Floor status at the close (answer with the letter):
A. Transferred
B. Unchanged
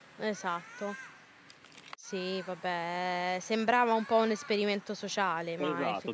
A